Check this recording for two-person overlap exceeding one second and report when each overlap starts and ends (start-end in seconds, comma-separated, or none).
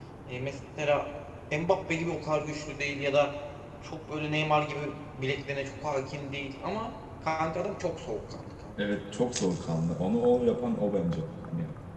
none